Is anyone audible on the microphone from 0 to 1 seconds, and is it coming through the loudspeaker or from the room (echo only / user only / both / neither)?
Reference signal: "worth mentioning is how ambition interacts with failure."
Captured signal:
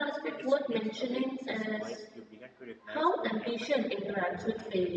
both